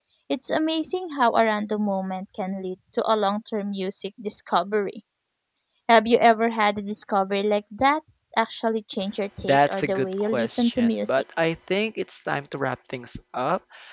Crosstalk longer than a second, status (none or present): present